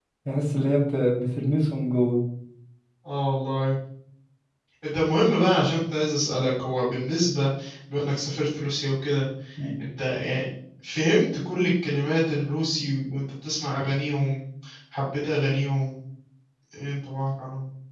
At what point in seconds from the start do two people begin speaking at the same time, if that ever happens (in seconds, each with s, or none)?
none